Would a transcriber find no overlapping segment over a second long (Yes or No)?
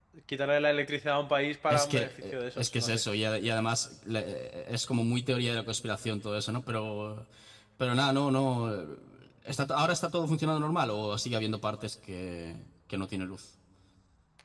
No